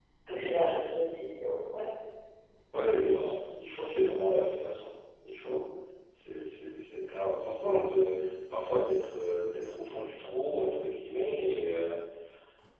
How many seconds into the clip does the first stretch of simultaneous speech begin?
none

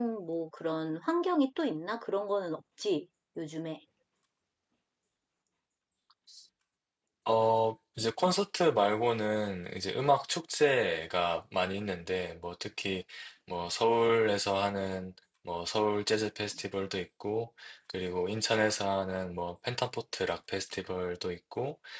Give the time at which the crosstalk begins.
none

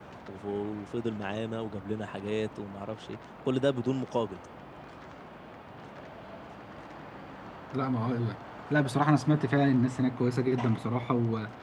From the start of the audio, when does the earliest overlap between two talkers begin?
none

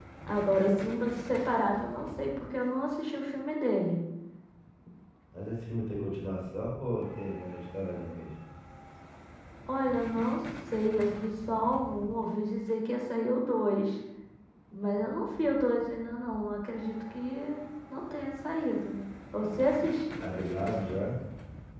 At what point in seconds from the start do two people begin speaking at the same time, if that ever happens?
none

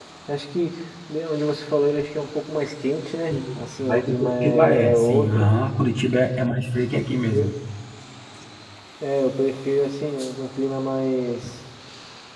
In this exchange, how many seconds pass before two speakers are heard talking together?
3 s

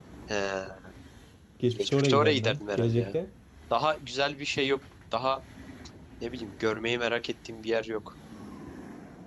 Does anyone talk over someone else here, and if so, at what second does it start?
2 s

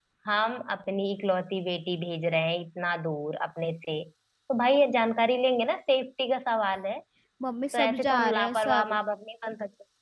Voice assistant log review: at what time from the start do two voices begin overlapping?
8 s

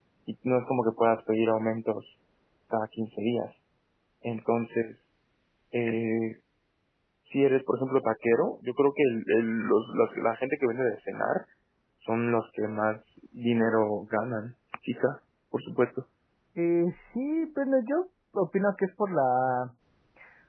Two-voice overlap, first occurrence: none

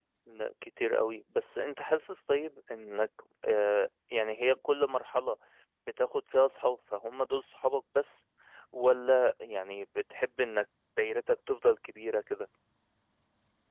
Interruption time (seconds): none

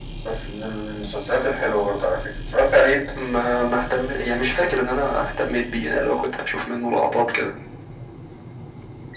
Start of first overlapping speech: none

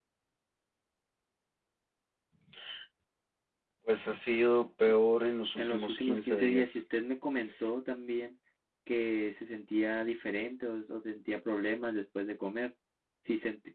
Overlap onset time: 6 s

